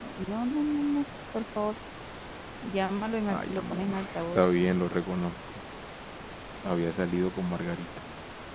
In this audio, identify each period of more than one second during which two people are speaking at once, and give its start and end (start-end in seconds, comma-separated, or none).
3.3-4.6